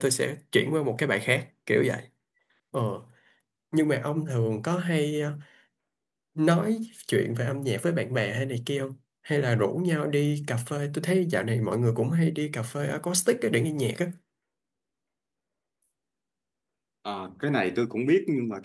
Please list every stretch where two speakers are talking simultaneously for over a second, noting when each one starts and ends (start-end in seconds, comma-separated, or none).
none